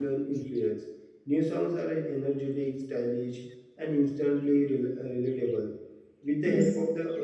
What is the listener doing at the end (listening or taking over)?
listening